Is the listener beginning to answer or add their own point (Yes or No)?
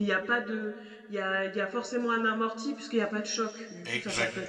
Yes